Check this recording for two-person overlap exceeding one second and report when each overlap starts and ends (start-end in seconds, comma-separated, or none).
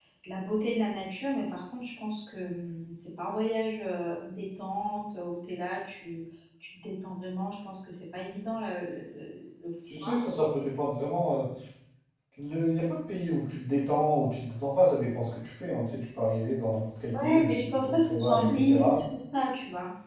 17.1-19.0